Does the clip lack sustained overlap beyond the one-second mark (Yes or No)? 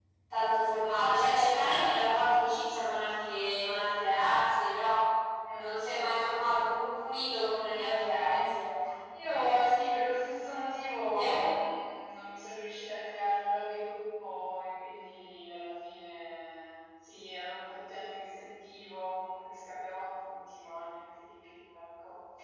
No